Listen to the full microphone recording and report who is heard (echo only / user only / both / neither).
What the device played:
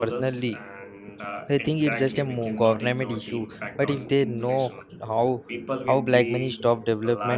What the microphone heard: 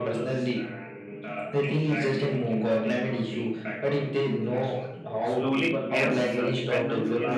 both